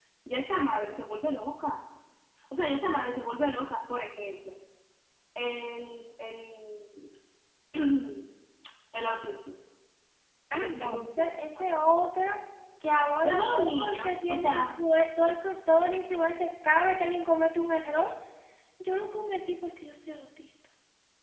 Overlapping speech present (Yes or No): Yes